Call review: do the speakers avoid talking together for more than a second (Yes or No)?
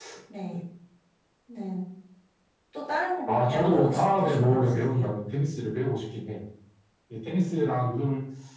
No